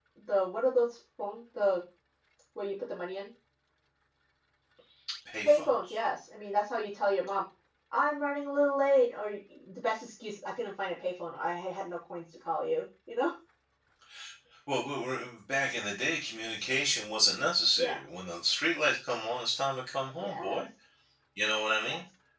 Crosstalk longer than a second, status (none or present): none